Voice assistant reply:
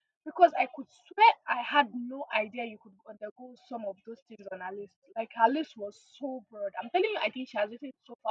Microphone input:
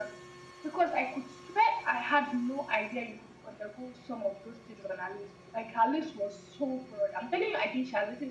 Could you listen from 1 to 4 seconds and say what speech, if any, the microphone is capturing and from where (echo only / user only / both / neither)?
echo only